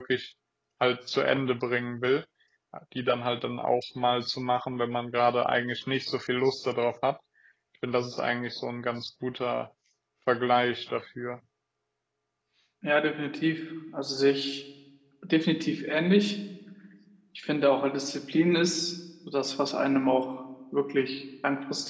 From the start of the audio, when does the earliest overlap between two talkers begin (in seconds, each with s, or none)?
none